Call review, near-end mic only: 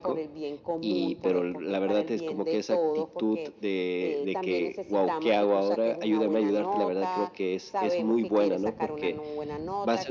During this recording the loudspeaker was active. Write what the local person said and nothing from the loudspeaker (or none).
none